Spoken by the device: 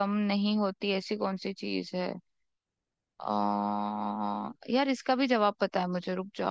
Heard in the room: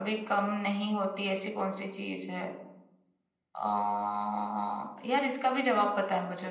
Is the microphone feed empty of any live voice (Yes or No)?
Yes